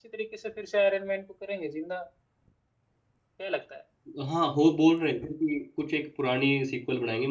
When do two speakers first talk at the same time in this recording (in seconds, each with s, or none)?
none